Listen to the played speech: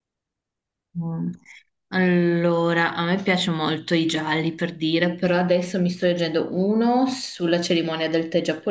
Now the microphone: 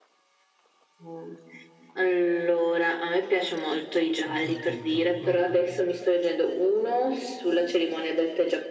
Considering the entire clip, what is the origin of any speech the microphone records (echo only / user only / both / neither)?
both